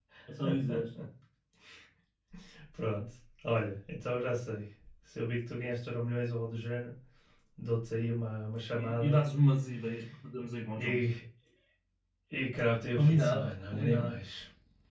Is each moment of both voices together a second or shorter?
No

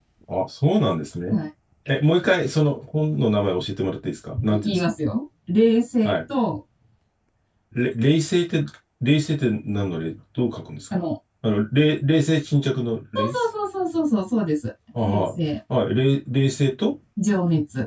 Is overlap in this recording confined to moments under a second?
Yes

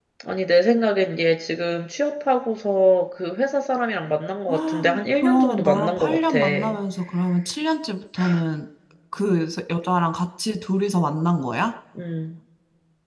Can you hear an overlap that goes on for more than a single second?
Yes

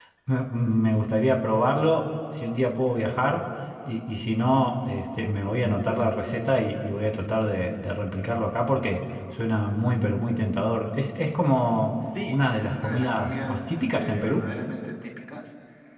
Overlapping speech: Yes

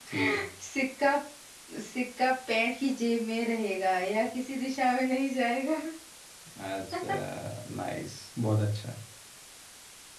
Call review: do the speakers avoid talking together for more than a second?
Yes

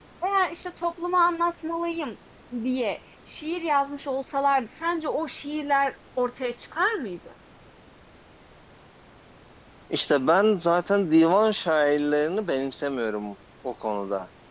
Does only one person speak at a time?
Yes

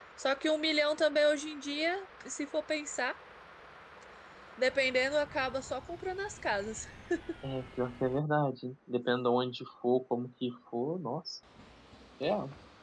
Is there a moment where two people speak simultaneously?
No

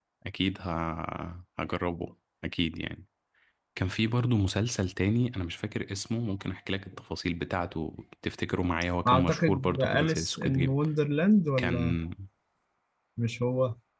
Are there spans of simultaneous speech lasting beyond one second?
Yes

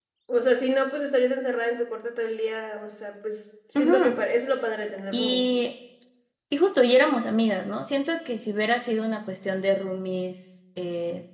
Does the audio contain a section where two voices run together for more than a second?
No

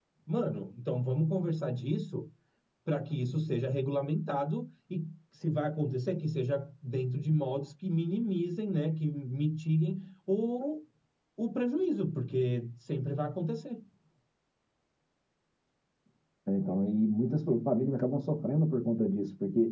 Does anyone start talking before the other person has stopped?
No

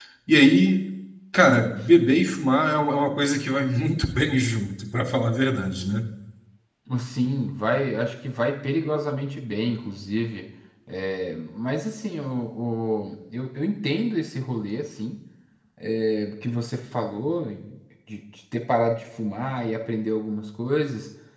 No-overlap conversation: Yes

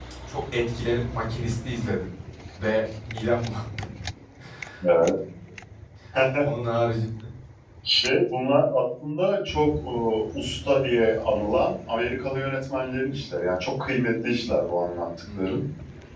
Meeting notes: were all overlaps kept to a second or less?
Yes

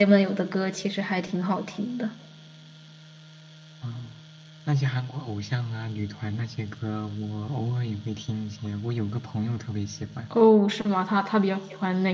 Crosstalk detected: No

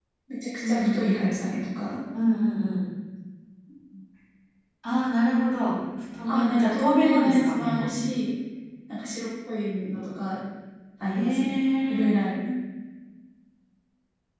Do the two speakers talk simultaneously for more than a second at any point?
Yes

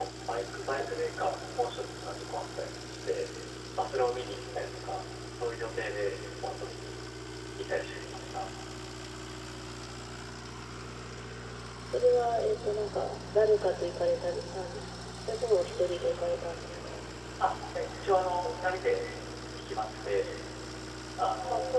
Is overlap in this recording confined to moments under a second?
Yes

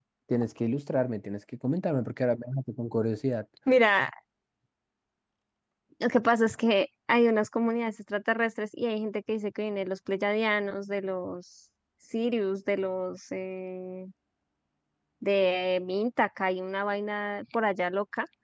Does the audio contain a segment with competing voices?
No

